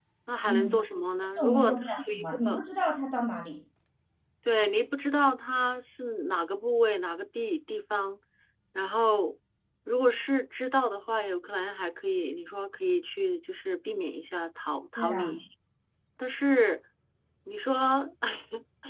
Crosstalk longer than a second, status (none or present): present